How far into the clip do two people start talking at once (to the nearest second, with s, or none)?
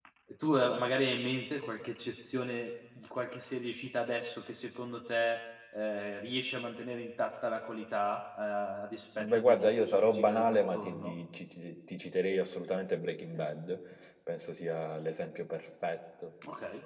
9 s